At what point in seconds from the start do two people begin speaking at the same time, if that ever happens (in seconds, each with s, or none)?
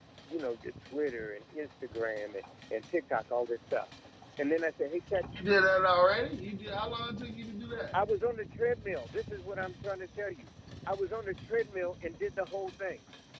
none